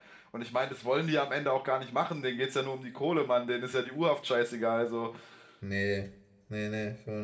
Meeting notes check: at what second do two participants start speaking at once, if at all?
none

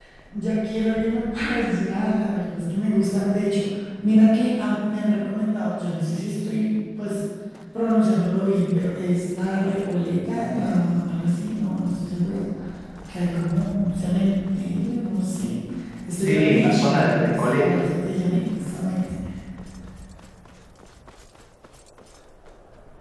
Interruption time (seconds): 16.2 s

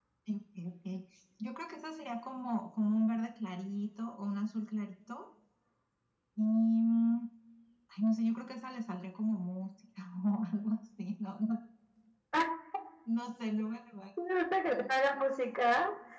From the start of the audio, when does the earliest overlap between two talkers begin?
none

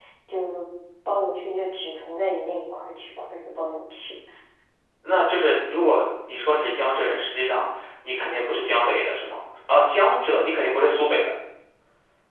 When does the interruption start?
none

